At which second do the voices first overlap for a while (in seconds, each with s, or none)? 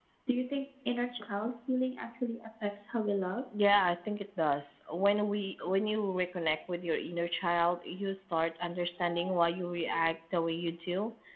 none